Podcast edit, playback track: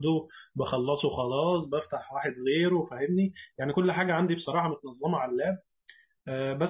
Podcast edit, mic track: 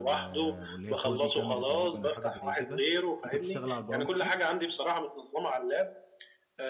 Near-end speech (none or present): present